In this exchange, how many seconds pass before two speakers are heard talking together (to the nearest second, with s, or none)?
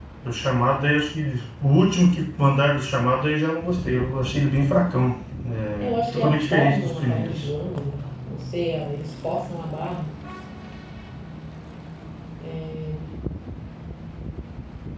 6 s